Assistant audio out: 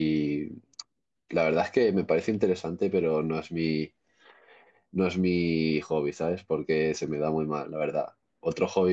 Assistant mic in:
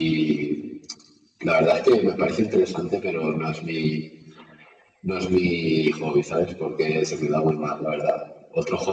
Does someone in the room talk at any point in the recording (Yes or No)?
No